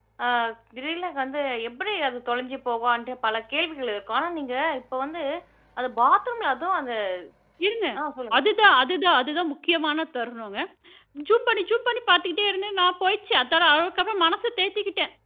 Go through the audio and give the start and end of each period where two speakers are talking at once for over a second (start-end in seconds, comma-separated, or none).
none